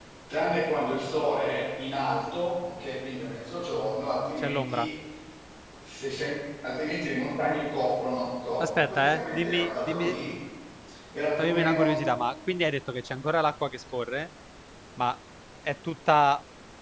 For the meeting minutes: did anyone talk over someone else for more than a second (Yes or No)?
Yes